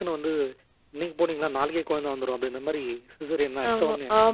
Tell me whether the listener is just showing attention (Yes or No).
No